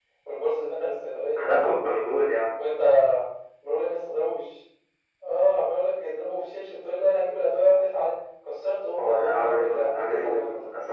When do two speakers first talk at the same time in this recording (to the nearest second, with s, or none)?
9 s